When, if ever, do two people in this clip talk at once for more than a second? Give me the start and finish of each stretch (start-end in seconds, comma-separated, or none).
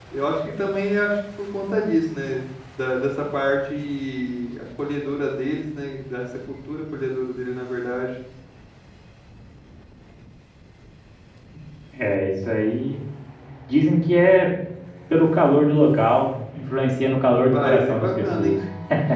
17.3-18.6